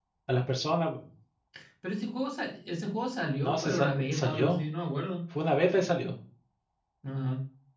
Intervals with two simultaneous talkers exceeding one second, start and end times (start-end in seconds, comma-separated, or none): 3.4-4.6